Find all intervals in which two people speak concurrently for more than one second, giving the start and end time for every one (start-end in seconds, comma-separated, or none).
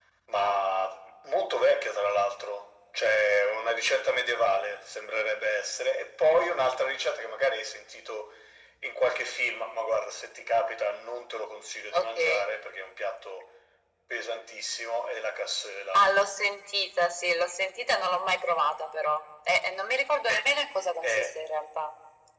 none